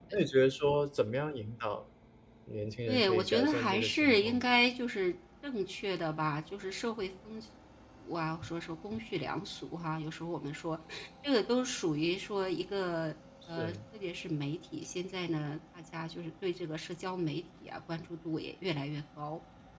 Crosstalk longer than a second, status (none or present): present